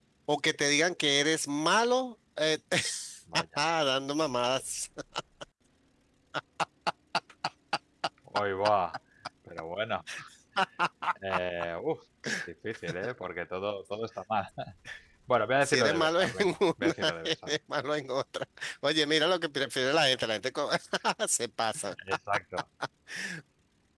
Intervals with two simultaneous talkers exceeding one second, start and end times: 15.6-17.5

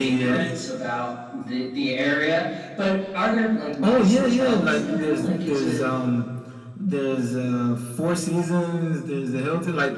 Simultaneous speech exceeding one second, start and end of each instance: 3.8-5.8

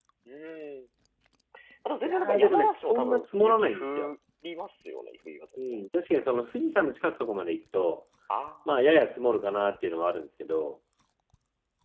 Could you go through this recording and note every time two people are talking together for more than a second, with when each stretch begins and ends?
2.0-4.1

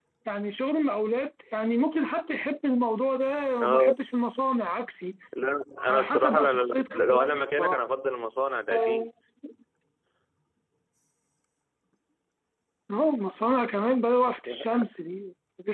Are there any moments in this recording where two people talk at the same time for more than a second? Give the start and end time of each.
5.9-7.8

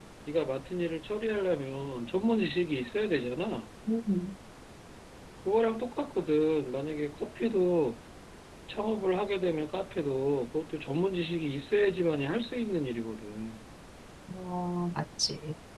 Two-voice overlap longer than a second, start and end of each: none

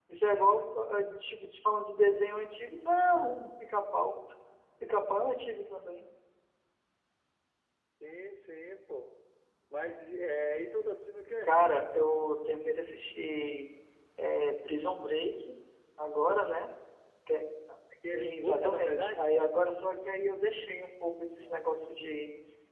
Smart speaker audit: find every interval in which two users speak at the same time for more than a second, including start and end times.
18.1-19.3

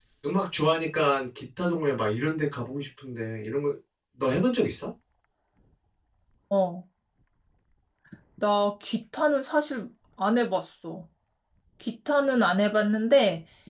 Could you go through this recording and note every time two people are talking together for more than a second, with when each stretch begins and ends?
none

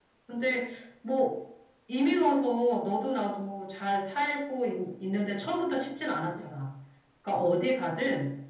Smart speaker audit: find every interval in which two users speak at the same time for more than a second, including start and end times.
none

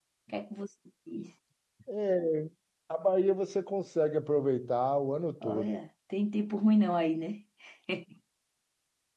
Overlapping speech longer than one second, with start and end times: none

